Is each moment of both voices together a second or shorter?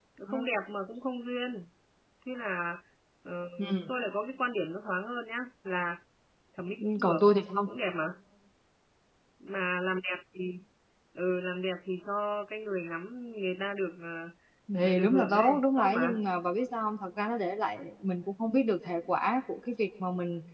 No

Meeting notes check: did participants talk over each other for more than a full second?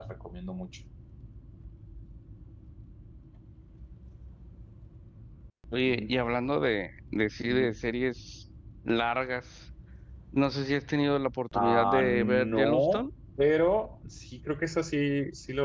Yes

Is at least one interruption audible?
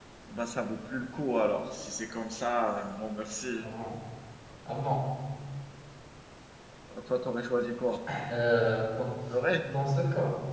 No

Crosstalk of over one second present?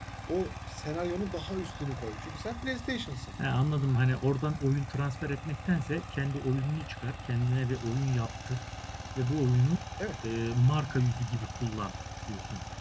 No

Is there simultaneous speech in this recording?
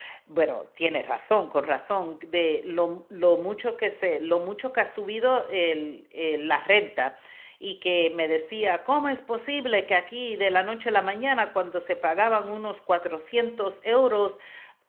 No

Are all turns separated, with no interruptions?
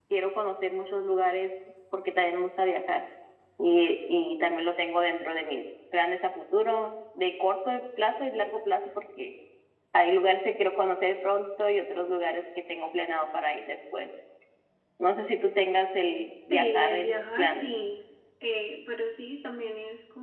No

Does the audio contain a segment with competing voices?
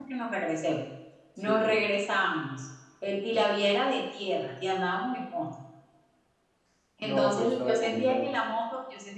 Yes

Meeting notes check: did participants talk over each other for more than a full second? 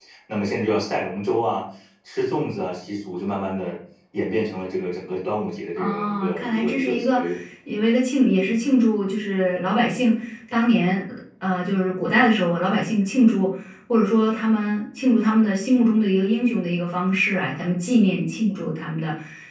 Yes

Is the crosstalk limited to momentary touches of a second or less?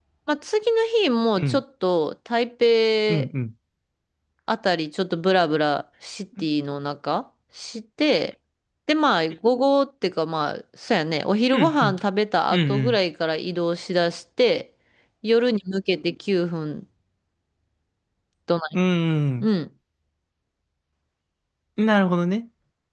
Yes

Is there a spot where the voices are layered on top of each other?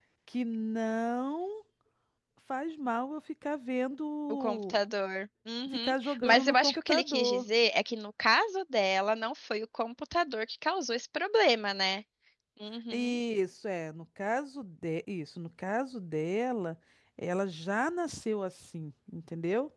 Yes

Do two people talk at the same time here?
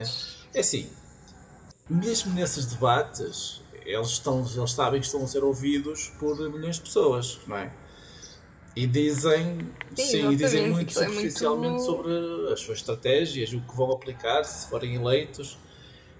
Yes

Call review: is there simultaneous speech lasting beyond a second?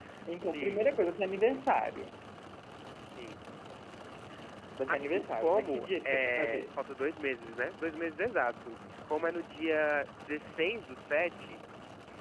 Yes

